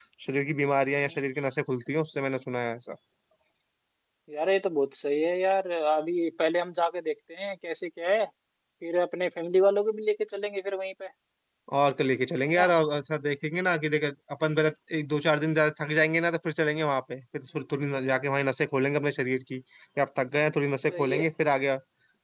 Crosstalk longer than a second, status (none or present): none